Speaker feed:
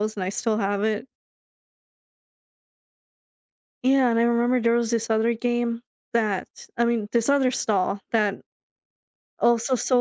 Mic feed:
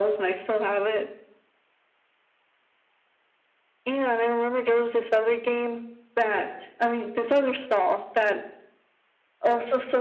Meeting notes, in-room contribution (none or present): none